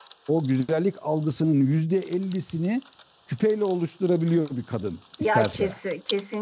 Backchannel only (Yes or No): No